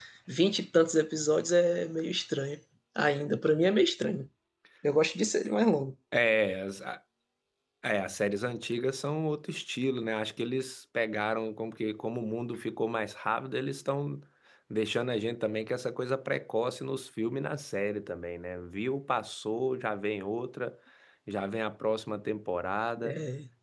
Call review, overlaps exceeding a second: none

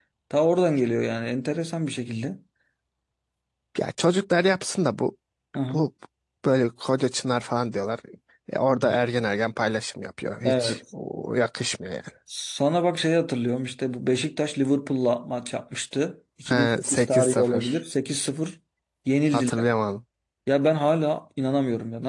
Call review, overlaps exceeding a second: present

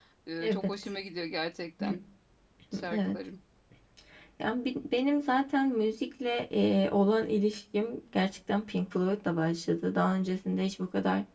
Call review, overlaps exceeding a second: none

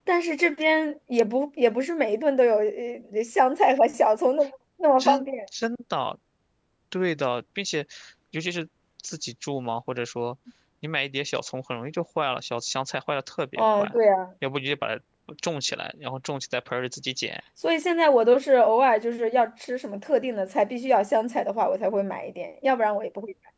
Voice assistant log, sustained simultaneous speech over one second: none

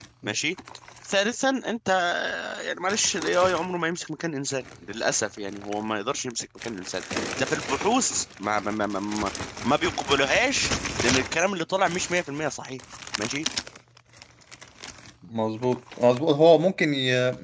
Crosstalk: none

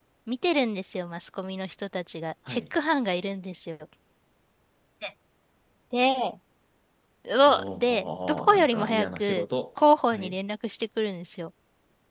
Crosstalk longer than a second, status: present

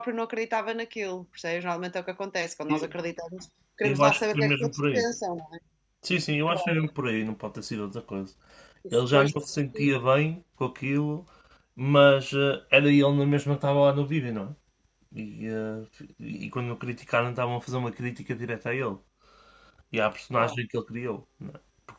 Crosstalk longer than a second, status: present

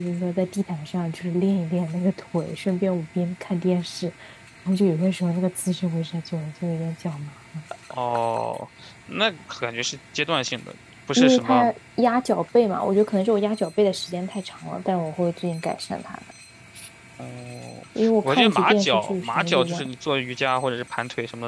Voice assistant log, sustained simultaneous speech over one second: present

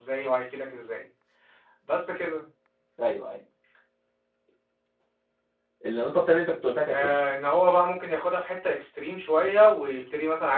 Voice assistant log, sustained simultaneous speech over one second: none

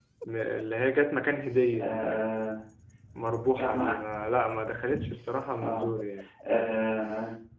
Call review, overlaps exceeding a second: none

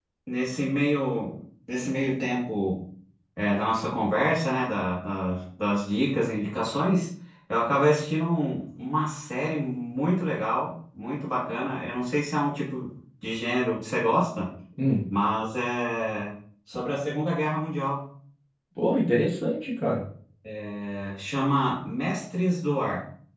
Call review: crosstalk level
none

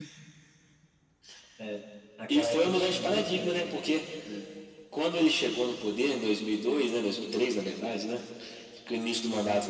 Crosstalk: present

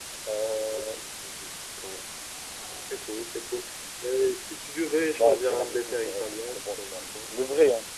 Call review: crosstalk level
present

